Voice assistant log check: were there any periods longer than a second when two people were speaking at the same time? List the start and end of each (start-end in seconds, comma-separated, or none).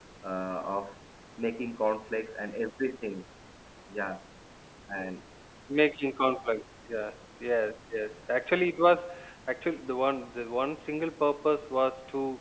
none